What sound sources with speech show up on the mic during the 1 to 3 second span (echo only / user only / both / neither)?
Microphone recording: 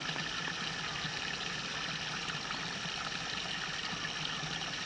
neither